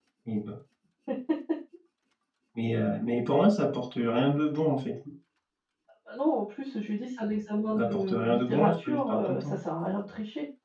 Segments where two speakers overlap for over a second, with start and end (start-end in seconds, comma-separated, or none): 7.8-9.4